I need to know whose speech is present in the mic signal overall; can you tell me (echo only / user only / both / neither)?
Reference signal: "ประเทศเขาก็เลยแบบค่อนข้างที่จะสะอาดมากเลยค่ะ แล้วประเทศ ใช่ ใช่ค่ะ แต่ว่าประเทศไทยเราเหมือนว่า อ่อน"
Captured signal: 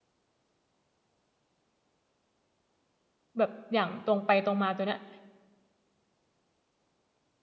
user only